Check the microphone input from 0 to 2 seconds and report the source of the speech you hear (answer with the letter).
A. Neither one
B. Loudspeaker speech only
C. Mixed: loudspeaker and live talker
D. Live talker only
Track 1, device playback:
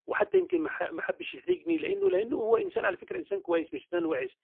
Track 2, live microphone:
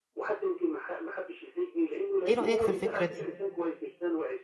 B